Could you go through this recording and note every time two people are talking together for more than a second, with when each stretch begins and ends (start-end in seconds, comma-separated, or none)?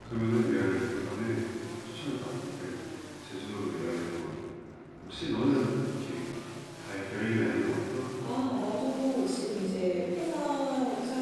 none